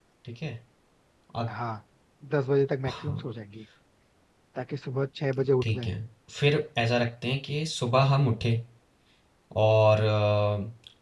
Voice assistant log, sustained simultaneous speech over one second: none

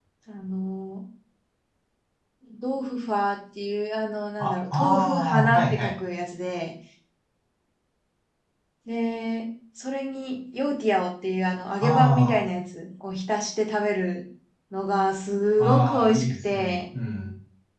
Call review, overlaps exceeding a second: present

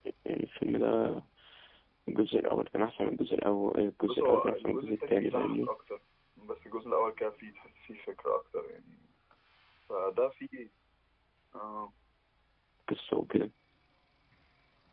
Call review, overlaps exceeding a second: present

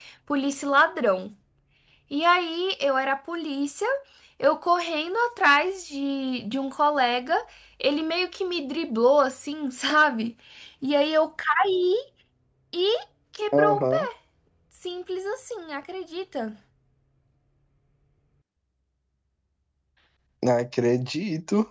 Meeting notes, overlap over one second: none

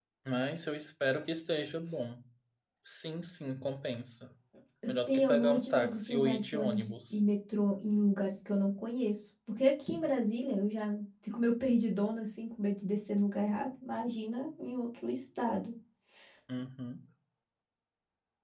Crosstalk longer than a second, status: present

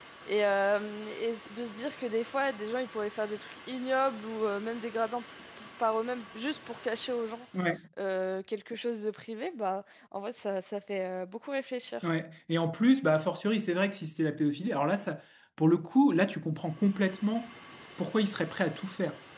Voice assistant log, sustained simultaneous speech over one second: none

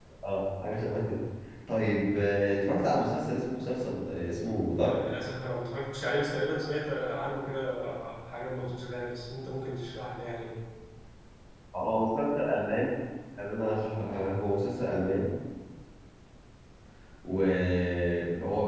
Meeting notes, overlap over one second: none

